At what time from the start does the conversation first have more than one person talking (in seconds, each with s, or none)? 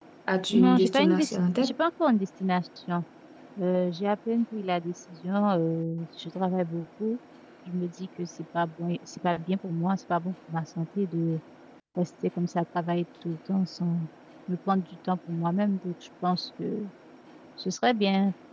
0.5 s